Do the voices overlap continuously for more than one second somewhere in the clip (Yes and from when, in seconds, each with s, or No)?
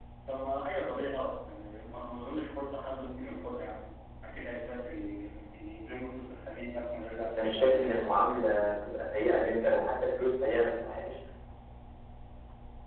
Yes, from 7.2 s